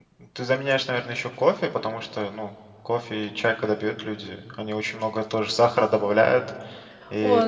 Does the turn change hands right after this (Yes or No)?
Yes